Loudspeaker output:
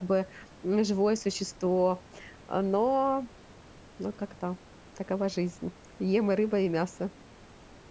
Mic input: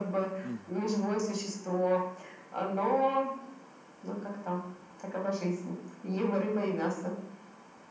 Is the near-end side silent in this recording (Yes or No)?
No